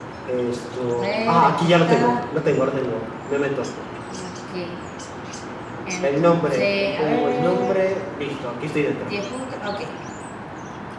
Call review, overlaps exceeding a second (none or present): present